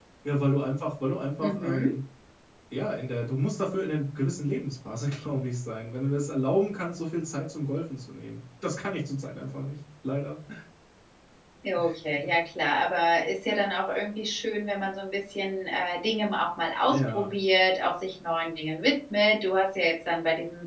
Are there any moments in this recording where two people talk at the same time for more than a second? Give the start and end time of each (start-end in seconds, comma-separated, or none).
none